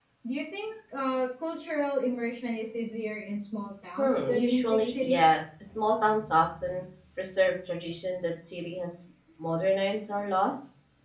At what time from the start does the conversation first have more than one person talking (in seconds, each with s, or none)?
4.0 s